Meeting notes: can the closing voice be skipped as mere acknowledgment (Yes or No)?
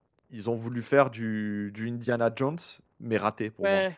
No